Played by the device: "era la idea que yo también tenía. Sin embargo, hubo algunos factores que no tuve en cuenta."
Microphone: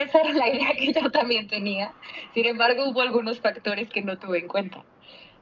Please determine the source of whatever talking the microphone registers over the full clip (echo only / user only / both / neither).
echo only